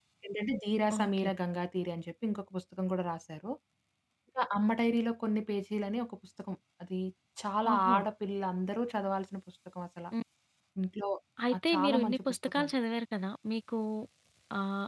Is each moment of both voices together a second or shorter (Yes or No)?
No